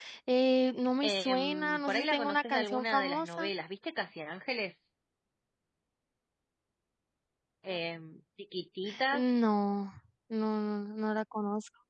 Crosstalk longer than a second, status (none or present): present